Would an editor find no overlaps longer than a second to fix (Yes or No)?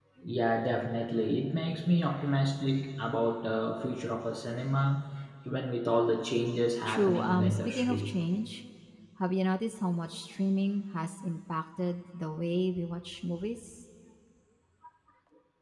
No